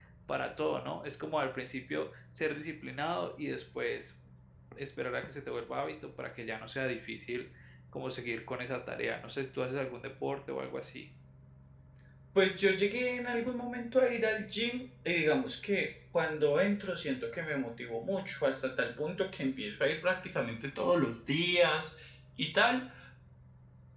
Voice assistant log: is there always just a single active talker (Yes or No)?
Yes